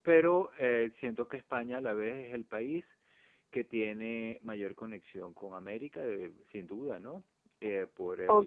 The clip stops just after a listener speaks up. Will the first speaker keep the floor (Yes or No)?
No